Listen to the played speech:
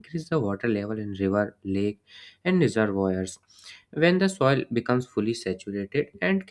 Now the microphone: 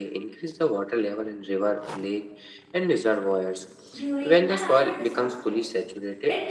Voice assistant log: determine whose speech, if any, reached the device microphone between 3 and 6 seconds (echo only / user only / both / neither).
both